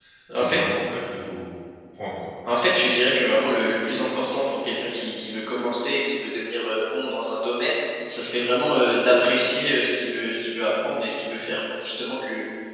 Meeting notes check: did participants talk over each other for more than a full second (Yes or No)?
No